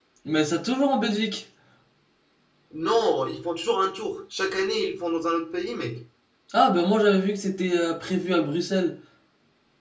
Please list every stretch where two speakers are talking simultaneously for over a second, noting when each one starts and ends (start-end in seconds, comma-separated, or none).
none